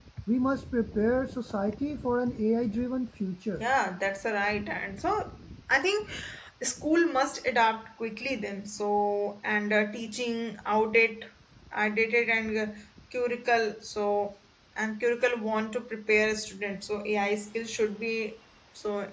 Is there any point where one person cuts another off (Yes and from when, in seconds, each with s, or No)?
No